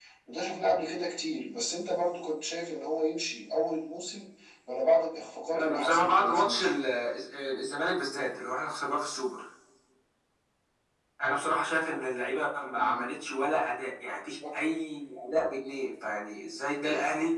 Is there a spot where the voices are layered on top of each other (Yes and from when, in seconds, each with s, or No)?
Yes, from 5.5 s